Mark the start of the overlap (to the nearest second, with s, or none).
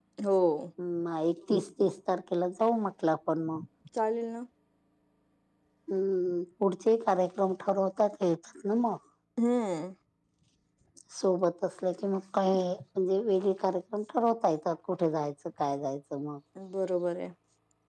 none